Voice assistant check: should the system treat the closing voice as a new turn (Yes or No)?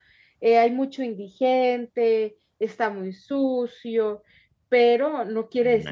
No